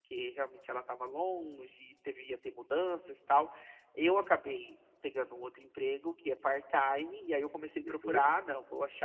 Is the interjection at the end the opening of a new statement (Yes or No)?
No